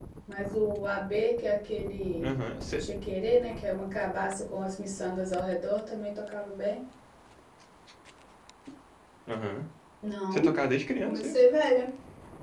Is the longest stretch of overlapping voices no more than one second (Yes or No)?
Yes